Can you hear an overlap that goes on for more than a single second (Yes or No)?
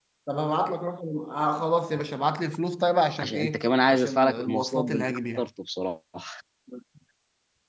Yes